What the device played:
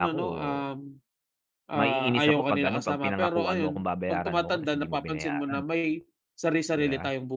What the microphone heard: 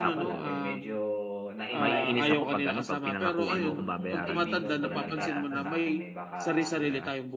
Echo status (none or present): present